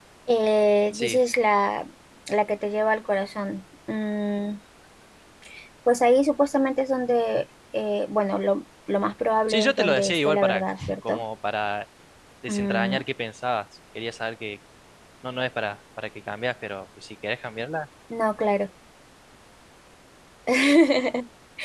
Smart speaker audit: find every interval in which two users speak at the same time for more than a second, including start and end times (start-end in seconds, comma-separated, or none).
9.5-11.2